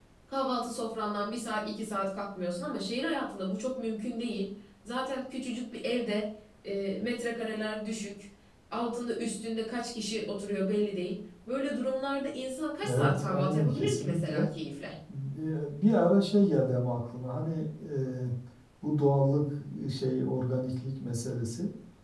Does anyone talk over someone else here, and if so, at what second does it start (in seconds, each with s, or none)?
12.8 s